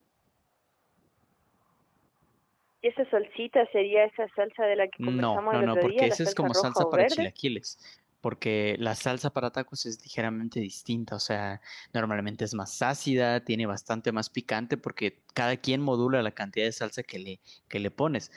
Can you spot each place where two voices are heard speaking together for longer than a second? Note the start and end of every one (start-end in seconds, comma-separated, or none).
5.0-7.3